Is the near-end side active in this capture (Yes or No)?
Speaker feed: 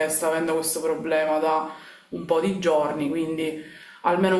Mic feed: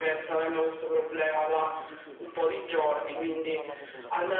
Yes